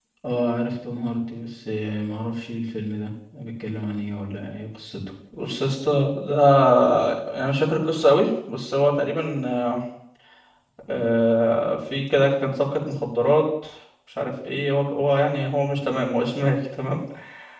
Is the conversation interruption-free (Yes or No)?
Yes